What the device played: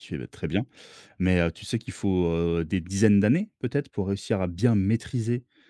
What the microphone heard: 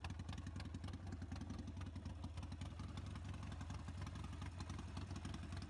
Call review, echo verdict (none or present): none